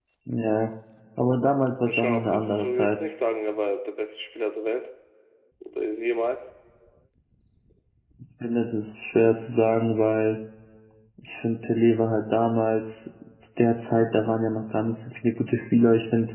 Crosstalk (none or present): present